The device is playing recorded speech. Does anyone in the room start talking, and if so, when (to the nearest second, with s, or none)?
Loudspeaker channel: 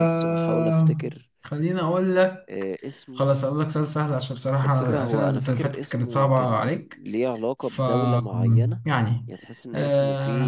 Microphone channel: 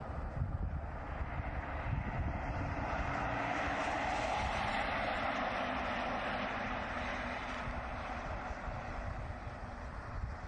none